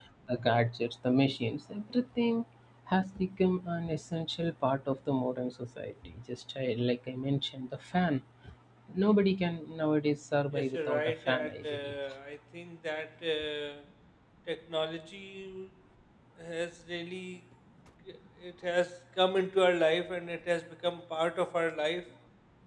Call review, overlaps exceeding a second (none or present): present